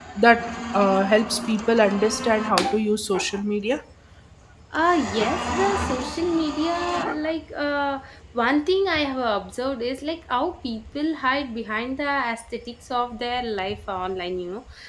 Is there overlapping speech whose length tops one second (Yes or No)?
No